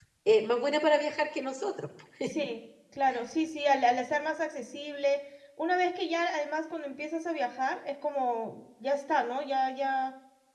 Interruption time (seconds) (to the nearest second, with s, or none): none